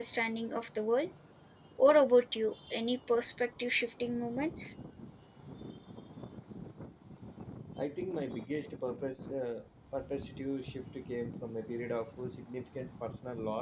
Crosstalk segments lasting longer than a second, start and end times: none

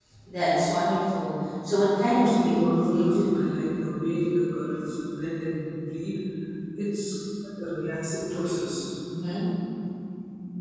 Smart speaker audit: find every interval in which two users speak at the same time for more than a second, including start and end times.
2.1-3.4

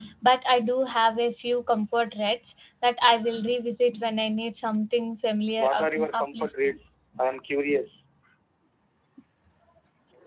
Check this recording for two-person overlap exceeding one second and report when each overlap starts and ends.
5.6-6.8

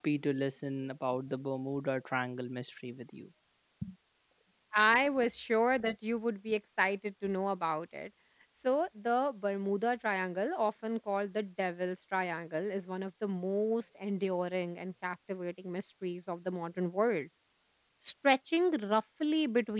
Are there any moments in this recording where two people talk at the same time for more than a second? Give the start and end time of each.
none

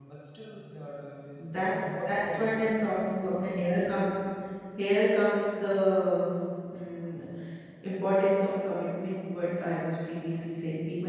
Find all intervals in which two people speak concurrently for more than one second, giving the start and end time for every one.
1.4-2.8

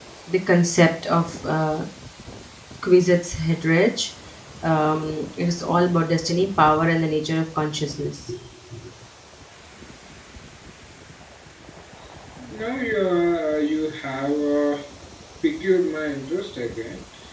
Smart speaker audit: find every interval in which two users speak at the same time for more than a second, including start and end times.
none

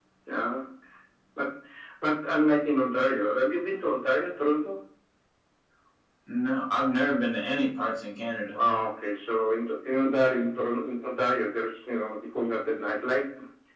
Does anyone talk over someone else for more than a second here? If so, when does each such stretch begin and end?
none

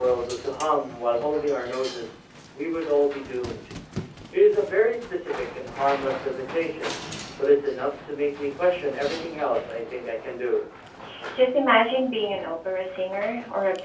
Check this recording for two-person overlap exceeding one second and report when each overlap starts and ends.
none

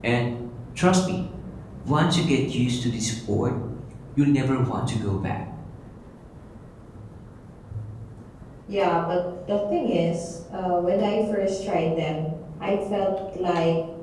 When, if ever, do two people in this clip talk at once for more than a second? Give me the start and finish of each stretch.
none

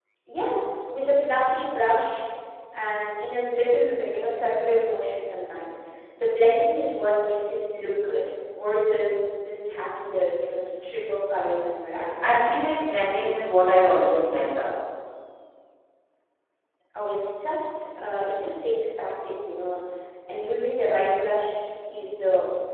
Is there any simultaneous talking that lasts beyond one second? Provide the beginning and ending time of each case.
none

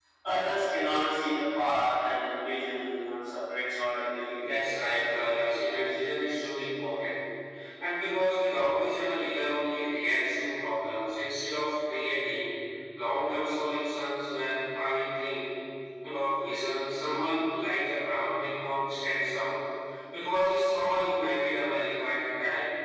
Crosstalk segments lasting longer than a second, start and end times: 4.4-5.8

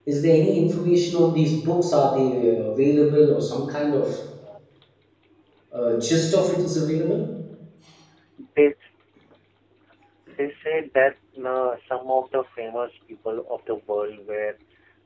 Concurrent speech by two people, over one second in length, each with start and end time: none

